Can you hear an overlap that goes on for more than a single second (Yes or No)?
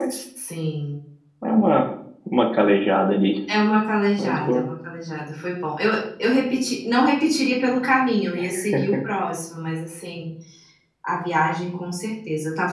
No